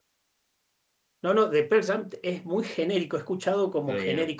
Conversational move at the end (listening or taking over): listening